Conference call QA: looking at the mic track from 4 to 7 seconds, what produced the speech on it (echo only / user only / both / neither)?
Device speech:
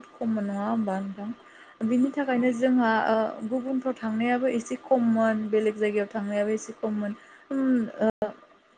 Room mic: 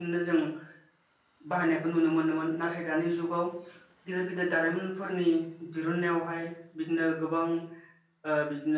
user only